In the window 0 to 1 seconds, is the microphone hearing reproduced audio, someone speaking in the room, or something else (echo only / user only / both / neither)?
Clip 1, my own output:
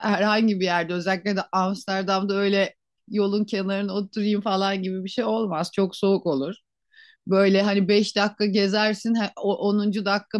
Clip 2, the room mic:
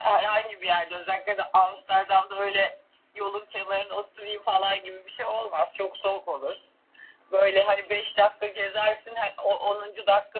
echo only